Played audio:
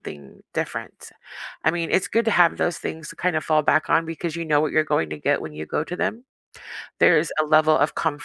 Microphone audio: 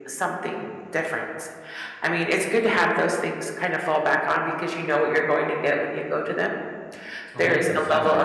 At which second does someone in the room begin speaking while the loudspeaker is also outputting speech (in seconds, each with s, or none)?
7.3 s